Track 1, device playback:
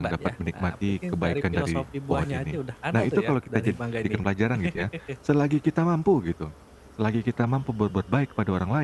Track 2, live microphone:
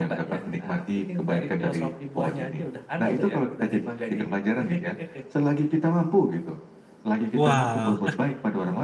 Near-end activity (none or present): present